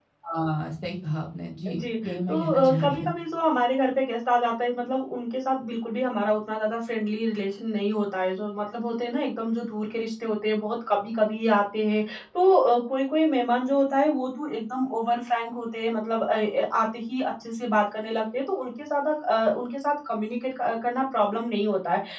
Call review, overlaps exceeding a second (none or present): present